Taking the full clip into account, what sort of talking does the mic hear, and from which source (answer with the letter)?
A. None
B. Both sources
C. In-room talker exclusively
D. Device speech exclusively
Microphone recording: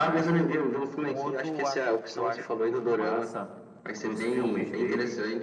D